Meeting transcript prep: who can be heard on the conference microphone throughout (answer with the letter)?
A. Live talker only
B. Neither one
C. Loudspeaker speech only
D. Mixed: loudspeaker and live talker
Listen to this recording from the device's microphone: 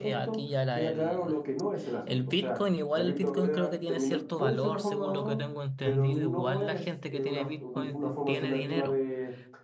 D